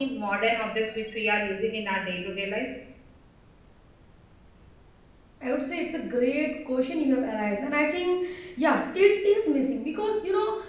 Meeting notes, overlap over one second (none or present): none